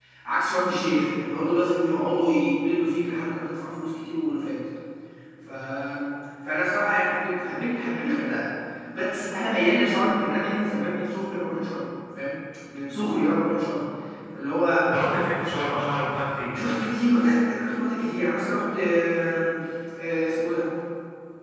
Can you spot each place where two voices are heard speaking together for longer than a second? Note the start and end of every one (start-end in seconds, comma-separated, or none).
none